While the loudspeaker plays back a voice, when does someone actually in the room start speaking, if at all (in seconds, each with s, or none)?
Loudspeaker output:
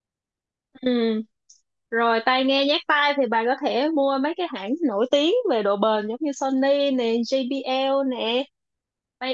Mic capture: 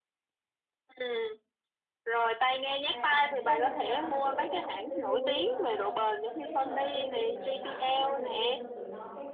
2.8 s